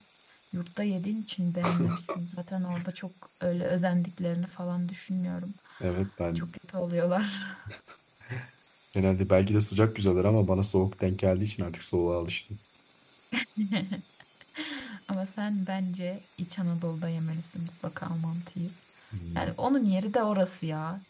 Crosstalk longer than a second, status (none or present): none